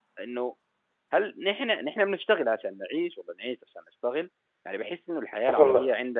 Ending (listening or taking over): listening